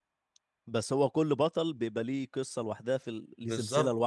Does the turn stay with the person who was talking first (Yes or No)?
No